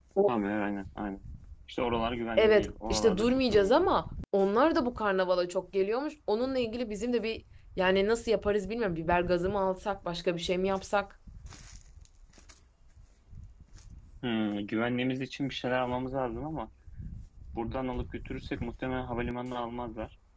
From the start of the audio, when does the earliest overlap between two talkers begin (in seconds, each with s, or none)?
2.4 s